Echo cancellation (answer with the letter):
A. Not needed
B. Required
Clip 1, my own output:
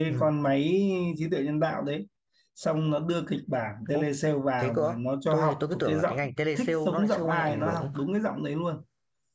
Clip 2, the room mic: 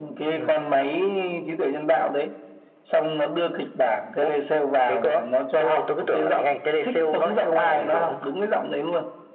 B